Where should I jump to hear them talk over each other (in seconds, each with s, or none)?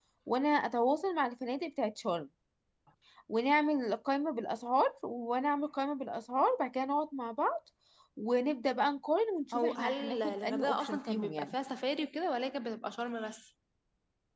9.5 s